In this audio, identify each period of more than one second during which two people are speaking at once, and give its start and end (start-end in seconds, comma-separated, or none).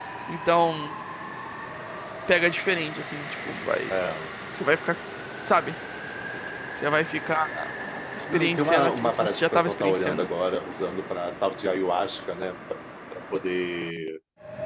8.3-10.3